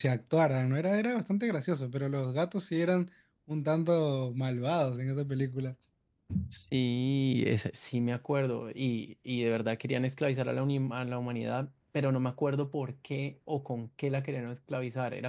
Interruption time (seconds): none

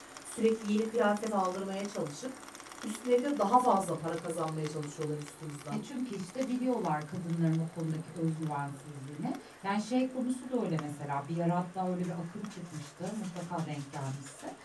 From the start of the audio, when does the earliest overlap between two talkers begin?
none

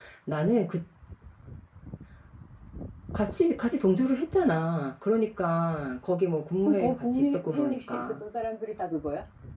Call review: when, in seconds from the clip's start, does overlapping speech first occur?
6.7 s

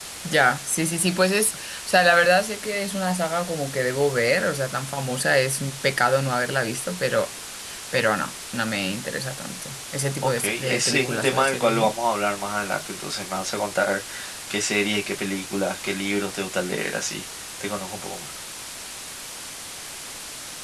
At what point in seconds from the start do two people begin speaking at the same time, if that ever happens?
10.2 s

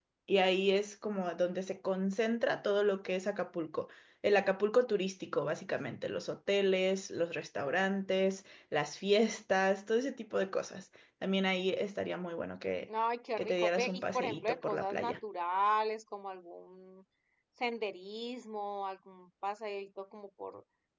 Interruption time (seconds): 13.4 s

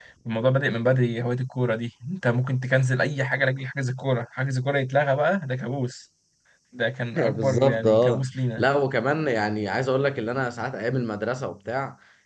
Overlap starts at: 7.2 s

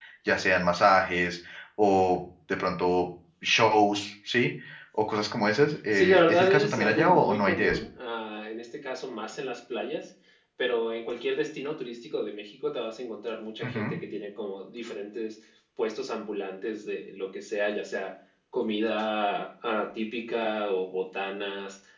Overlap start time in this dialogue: 5.9 s

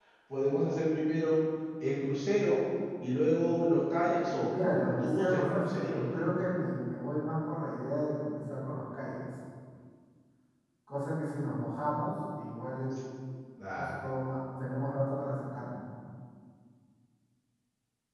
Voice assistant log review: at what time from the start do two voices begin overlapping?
4.6 s

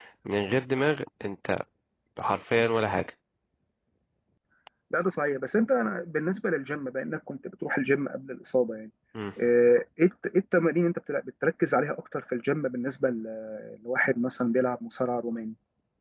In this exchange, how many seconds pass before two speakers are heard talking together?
none

